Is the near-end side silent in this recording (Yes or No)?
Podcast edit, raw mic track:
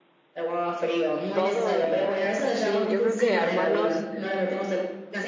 No